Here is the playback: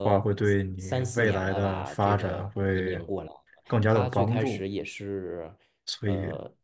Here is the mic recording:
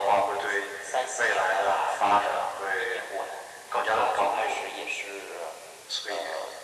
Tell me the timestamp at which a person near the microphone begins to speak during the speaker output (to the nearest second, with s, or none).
none